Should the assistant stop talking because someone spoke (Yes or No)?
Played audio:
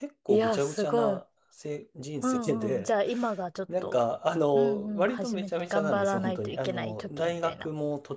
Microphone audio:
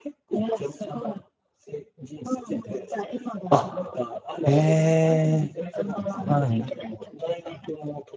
Yes